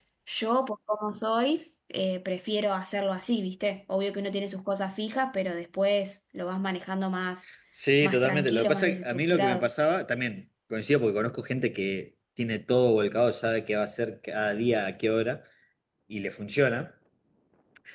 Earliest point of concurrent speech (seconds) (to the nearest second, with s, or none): 8 s